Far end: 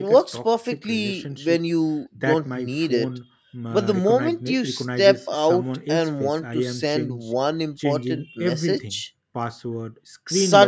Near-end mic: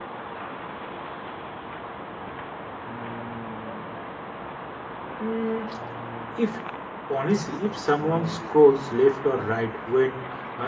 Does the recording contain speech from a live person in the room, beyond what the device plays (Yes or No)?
Yes